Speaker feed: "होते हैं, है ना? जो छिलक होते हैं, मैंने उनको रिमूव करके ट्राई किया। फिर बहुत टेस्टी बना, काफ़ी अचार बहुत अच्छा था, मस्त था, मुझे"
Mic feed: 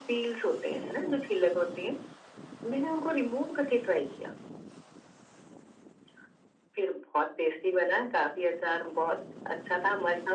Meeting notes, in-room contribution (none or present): none